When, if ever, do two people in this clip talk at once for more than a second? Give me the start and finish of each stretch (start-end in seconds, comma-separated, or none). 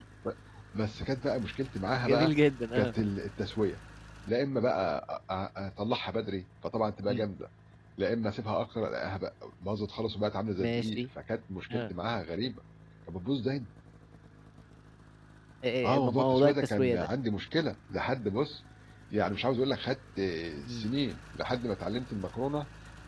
15.8-17.1